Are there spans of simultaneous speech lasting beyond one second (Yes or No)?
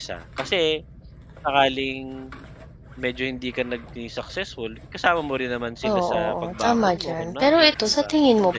Yes